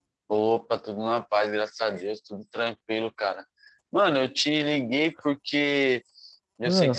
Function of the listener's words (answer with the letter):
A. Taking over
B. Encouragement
B